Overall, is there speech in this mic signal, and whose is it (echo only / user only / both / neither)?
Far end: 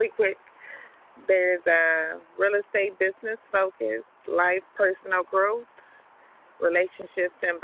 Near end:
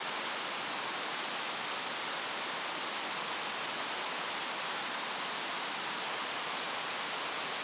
neither